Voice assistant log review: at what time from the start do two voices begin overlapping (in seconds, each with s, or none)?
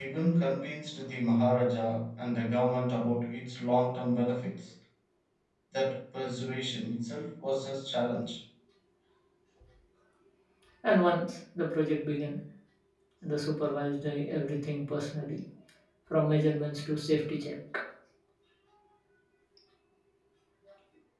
none